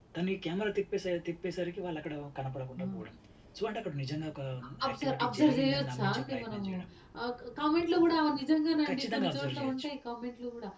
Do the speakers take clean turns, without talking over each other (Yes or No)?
No